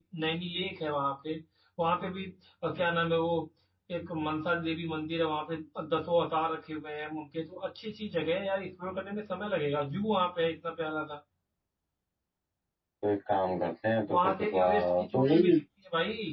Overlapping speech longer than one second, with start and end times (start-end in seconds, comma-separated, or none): 14.2-15.6